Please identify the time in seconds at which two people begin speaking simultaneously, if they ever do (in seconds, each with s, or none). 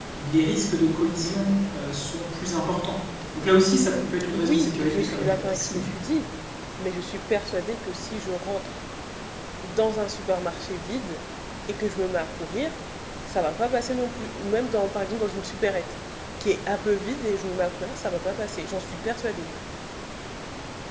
4.3 s